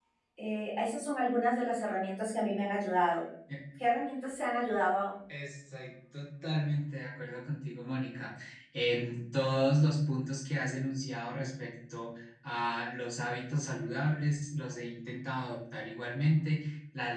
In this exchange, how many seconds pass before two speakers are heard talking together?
none

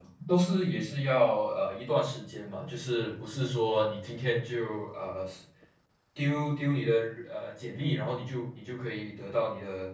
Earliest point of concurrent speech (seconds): none

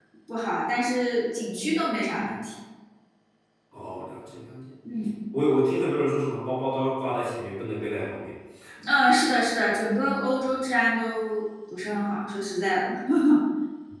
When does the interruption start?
none

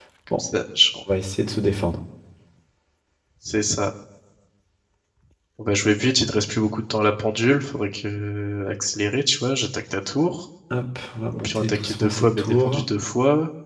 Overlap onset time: 11.3 s

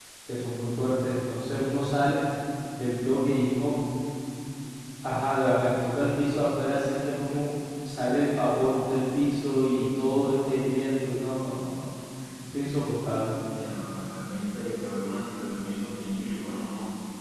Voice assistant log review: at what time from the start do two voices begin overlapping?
none

